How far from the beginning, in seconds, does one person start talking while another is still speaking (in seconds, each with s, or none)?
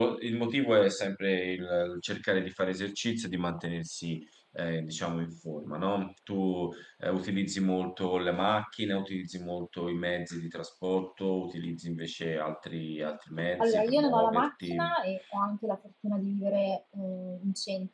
13.6 s